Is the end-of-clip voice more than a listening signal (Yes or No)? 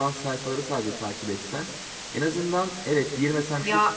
No